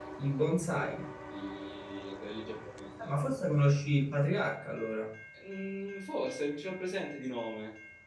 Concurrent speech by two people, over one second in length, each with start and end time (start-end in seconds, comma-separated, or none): none